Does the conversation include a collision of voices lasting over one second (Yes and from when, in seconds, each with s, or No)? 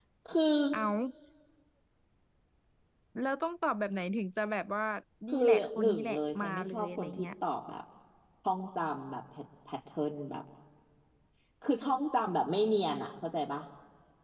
Yes, from 5.3 s